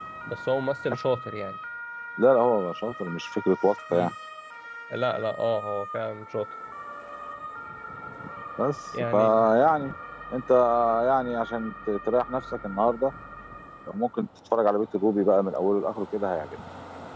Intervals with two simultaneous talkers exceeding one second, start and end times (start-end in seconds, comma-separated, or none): none